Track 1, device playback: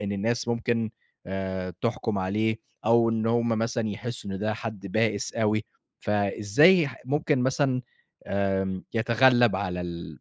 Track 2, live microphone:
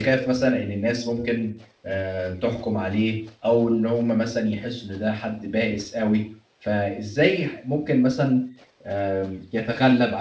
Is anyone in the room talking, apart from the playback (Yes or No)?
No